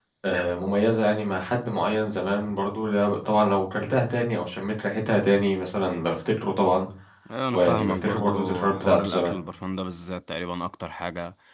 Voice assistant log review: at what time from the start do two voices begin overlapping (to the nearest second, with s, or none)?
8 s